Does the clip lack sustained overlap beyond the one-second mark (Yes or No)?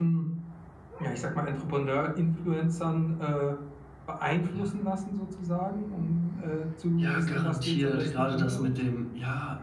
No